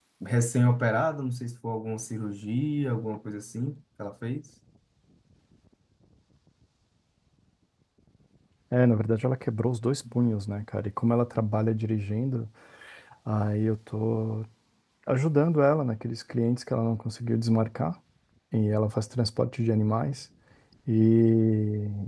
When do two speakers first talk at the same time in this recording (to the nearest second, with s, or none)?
none